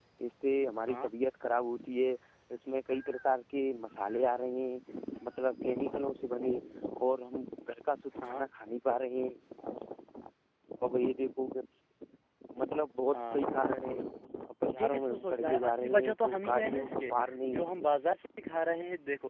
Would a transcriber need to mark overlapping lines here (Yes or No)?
Yes